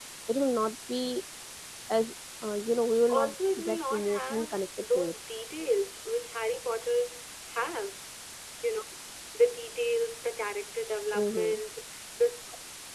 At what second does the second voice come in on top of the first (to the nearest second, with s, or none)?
3 s